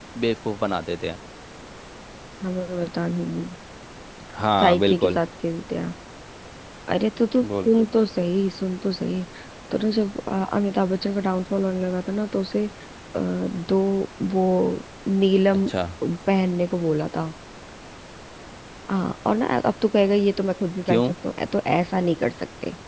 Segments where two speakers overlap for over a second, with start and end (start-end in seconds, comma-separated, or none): none